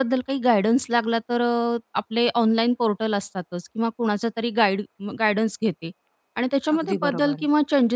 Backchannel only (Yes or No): Yes